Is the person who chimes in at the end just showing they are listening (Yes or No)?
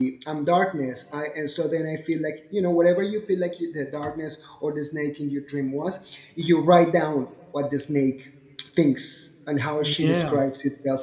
Yes